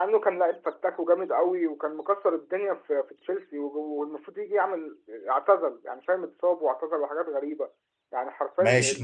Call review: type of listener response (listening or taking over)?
taking over